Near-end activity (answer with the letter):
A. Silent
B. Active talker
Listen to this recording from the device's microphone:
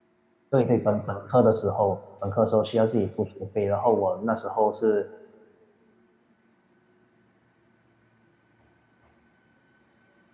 B